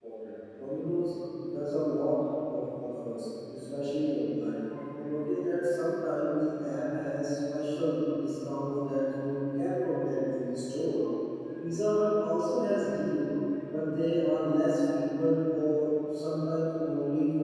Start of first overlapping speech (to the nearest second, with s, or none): none